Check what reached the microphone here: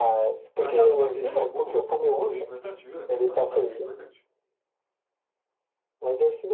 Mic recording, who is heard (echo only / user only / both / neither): both